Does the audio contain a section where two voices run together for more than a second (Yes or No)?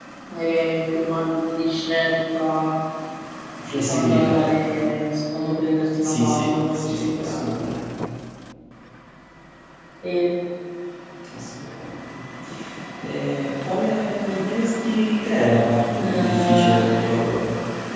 Yes